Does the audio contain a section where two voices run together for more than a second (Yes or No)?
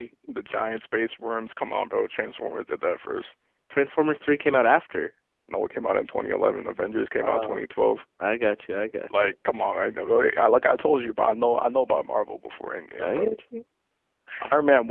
No